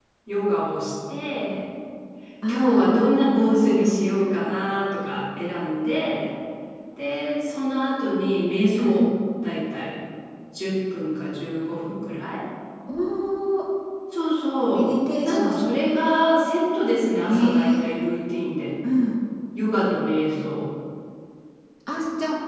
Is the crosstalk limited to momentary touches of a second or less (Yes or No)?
No